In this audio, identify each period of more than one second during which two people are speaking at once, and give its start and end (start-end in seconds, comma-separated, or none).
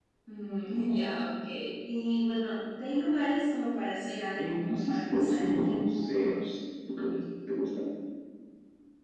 4.4-6.1